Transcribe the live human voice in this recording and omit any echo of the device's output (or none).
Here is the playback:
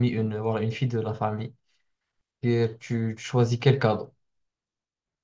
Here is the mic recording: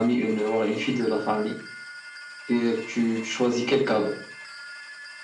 none